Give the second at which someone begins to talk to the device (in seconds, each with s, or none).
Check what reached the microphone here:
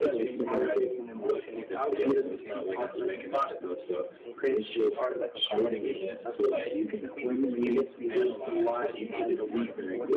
none